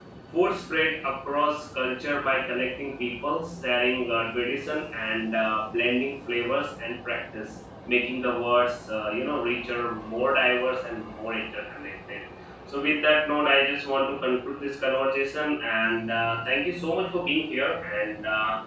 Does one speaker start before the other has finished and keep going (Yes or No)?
No